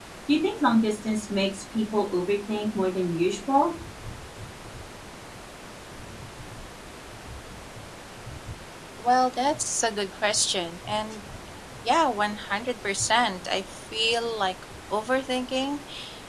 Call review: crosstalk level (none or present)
none